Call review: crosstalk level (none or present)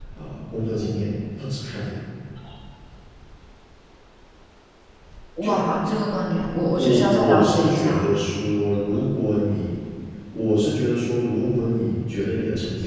present